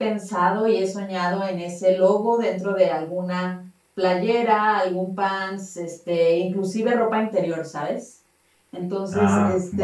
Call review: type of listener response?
listening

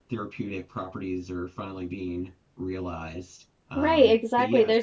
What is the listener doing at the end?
taking over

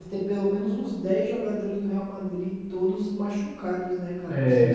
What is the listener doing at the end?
taking over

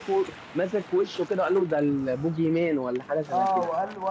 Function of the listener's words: taking over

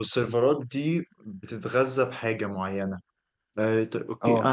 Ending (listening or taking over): listening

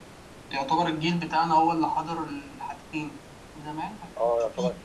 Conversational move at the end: taking over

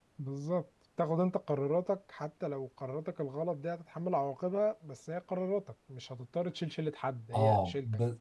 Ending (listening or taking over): taking over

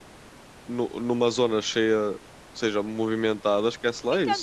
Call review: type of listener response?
taking over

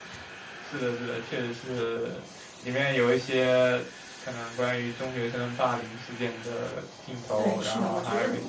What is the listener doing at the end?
taking over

